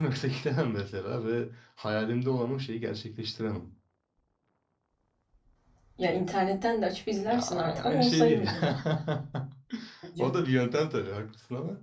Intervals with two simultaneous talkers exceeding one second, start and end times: 7.3-8.5

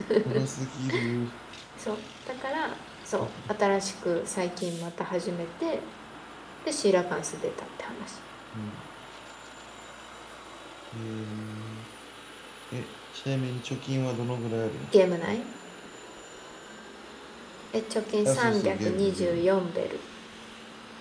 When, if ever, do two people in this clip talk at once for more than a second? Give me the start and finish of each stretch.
18.2-19.5

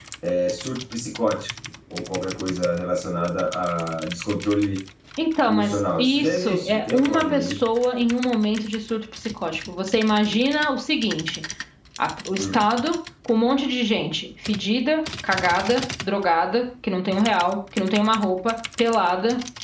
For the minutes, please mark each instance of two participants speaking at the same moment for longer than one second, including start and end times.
5.4-7.6

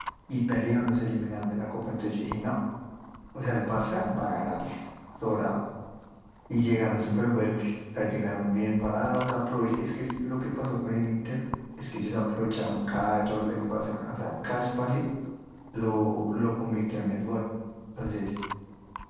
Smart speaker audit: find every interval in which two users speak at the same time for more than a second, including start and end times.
none

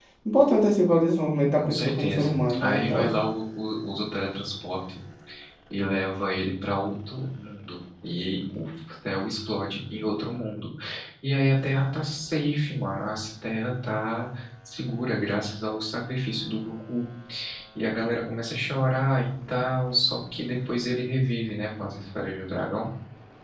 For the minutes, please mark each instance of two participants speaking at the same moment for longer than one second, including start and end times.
1.6-3.0

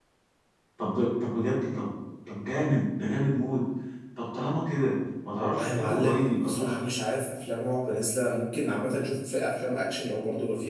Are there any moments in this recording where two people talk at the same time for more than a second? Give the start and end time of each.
5.4-7.0

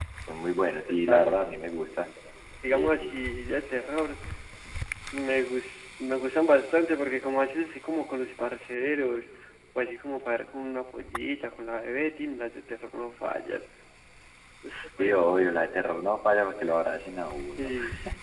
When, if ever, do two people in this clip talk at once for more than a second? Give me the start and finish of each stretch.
none

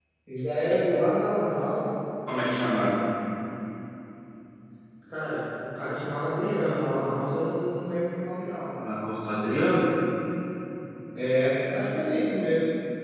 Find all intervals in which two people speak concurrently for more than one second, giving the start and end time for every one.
none

